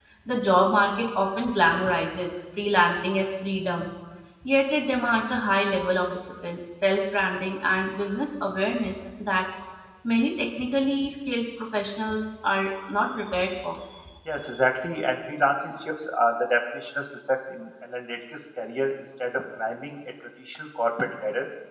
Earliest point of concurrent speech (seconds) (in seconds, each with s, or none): none